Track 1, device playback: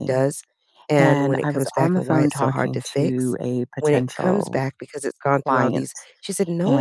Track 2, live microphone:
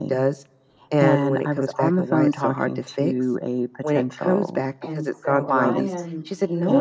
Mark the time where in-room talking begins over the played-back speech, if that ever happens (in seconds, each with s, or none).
4.8 s